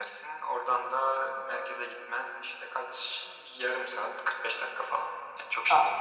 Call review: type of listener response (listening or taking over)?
taking over